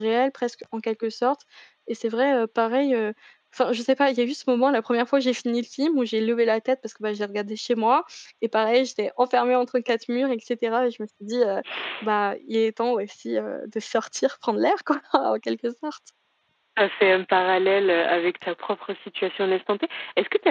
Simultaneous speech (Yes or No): No